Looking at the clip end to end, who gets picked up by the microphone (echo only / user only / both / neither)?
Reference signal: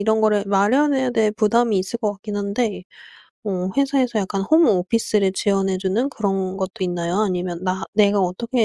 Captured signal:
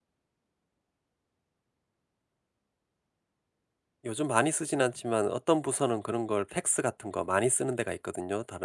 user only